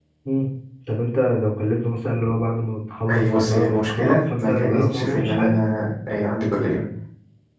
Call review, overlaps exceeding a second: present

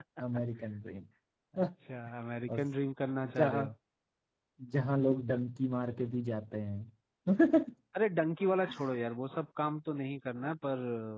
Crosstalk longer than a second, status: none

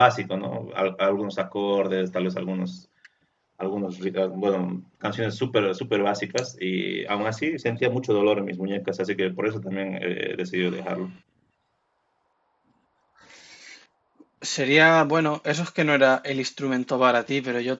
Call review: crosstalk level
none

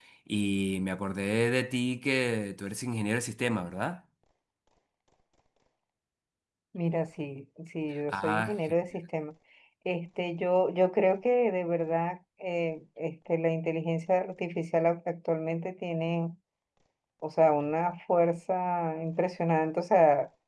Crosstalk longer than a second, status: none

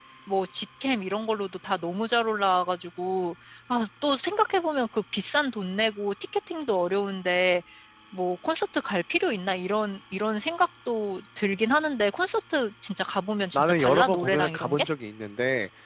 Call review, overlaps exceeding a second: present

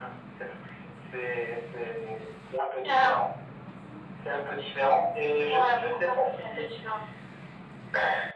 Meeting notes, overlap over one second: present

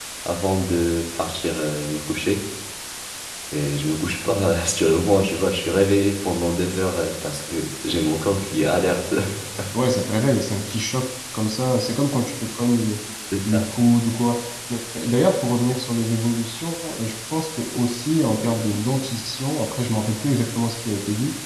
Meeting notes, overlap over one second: none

